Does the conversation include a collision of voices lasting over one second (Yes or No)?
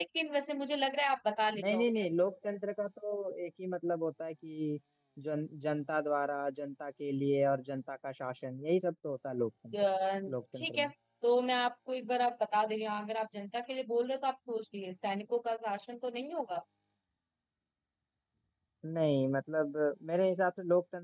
No